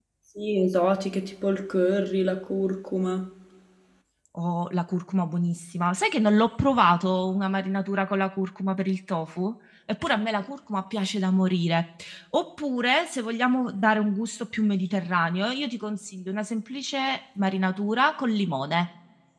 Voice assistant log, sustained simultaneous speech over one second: none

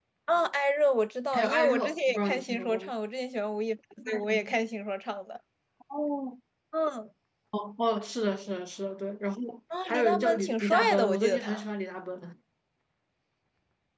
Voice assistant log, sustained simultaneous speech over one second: present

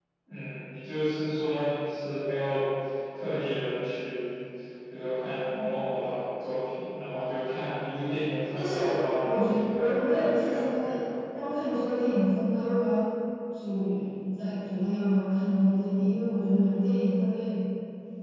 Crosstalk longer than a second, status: present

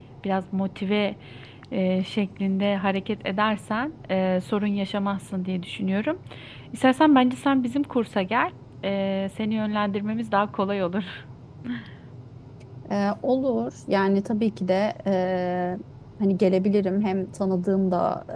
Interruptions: none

